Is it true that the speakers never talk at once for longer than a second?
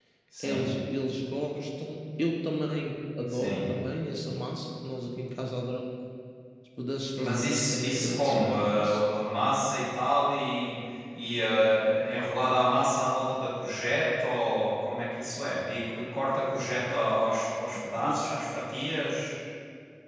No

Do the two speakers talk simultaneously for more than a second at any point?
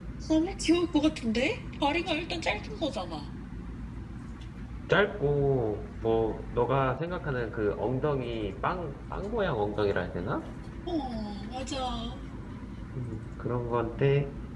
No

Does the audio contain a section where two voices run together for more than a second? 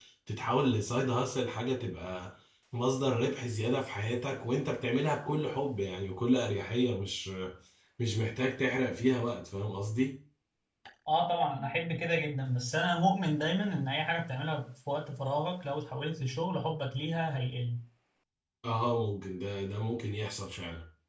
No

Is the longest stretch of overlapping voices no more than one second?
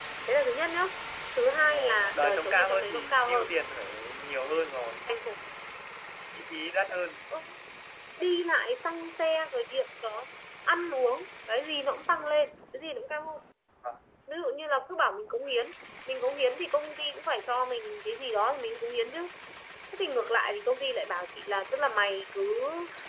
No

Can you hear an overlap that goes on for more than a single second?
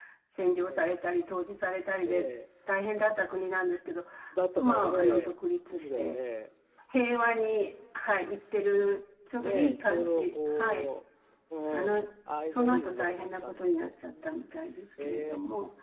Yes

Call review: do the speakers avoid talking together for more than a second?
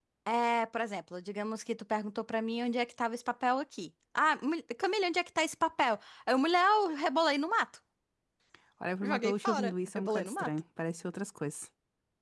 No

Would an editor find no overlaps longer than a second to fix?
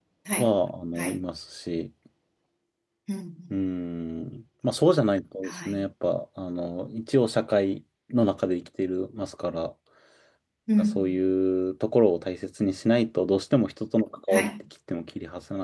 Yes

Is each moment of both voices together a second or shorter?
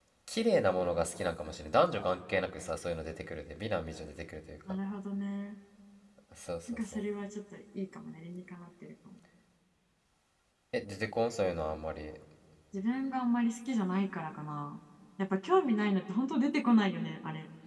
Yes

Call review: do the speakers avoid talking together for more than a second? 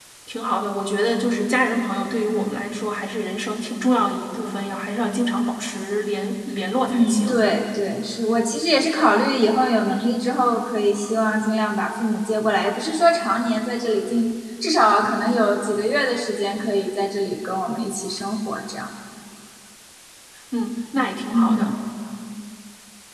Yes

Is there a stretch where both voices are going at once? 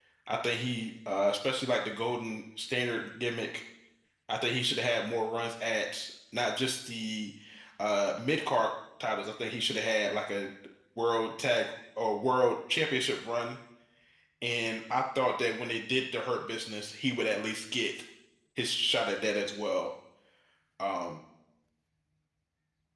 No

